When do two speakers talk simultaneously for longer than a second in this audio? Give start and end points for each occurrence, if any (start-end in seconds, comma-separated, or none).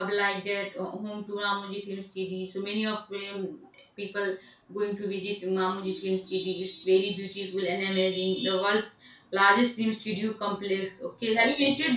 none